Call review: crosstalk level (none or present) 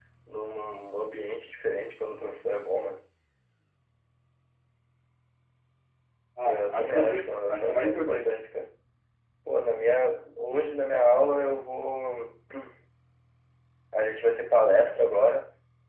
present